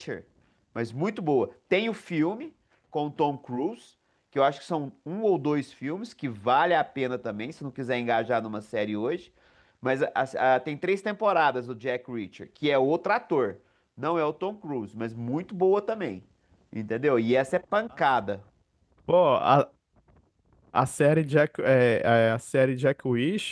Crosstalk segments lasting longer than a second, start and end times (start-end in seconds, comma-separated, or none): none